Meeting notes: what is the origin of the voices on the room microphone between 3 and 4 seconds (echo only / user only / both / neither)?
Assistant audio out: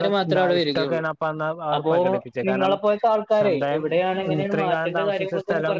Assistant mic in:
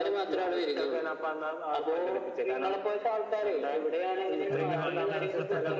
echo only